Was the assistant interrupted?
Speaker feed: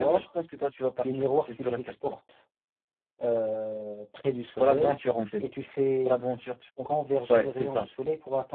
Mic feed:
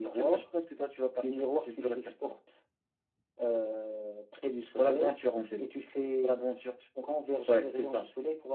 No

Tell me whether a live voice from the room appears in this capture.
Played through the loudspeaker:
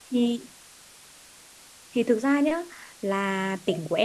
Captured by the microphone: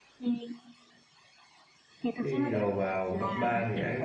Yes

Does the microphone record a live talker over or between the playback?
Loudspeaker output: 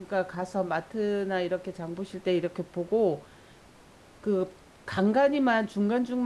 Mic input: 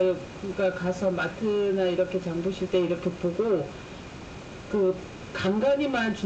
No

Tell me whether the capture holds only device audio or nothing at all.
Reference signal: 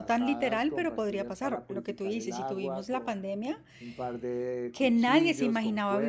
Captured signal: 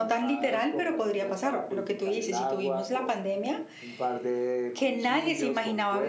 Yes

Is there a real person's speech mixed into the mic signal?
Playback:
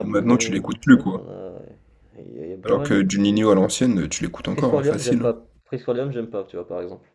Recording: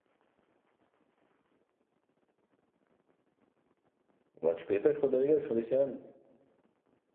Yes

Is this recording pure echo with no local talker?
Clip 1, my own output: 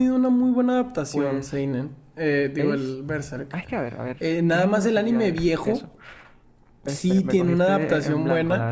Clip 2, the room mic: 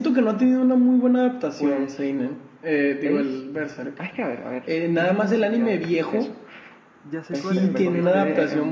No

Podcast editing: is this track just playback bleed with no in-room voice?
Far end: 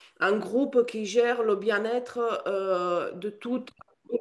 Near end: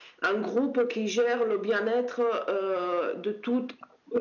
Yes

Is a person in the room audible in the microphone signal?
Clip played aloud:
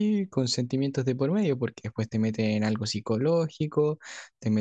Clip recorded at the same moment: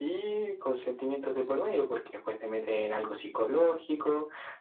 No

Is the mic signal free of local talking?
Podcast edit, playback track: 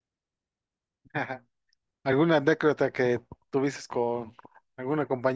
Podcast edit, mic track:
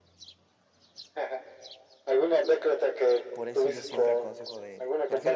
No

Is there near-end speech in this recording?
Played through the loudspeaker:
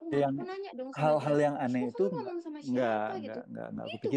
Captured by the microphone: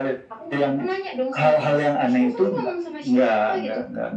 No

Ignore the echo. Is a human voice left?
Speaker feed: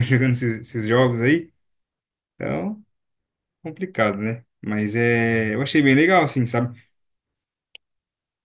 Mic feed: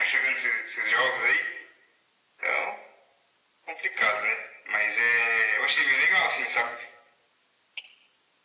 No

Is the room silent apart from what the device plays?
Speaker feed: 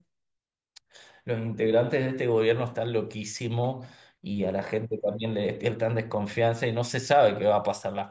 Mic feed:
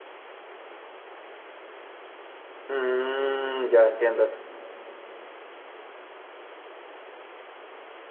No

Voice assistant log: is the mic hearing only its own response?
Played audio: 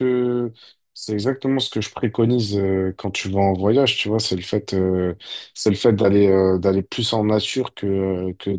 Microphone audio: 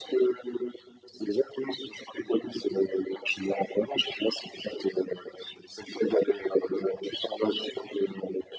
Yes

